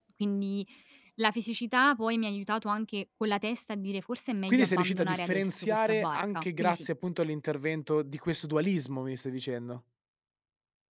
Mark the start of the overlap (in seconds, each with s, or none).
4.5 s